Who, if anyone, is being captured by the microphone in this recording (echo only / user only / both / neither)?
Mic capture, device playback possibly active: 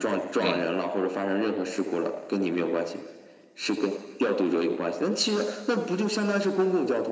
both